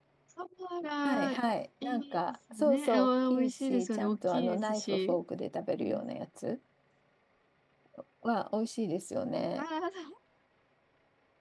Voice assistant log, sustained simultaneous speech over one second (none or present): present